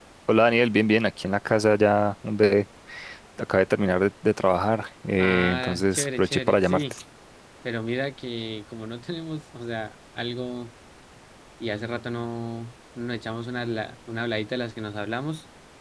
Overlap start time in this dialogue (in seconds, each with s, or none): 5.2 s